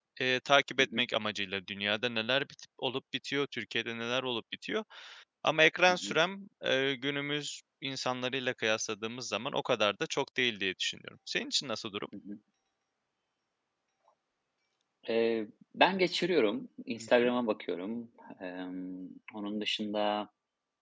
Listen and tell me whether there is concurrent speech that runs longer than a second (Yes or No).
No